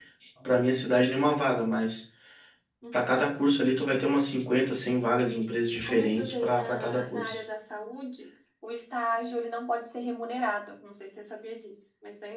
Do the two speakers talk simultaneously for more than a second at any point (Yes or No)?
Yes